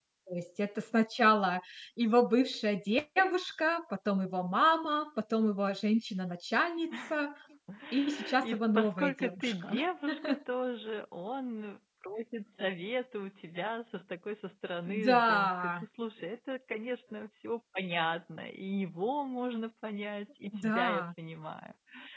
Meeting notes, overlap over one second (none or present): present